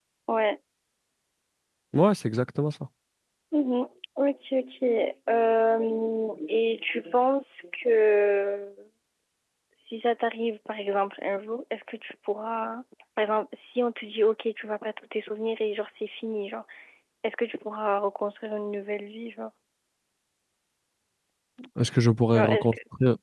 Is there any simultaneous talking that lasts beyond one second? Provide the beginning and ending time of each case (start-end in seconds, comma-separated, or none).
none